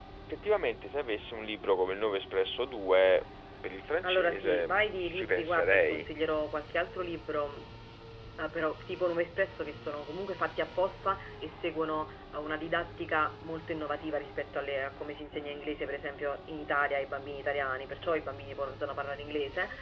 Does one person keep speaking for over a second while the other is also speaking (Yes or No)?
Yes